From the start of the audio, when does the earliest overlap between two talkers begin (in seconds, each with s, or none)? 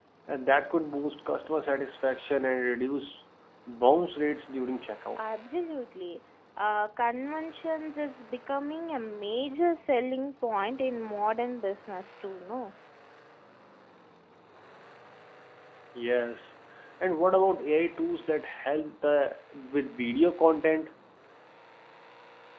none